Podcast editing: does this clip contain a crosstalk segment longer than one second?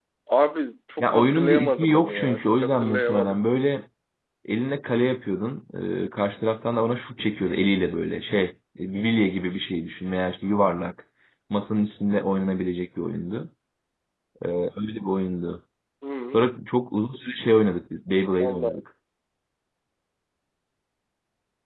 Yes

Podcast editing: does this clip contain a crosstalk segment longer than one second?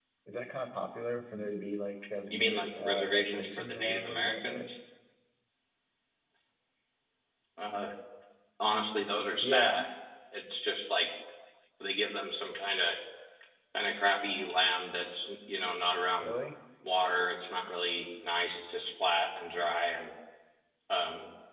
Yes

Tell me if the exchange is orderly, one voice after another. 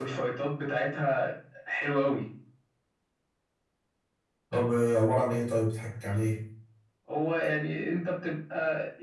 Yes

